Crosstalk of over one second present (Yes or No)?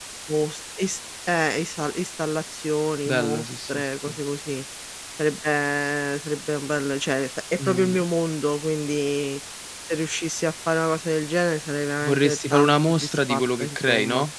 Yes